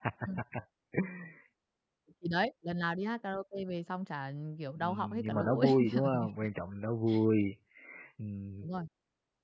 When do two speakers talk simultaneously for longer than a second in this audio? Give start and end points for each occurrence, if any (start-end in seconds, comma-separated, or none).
4.8-6.3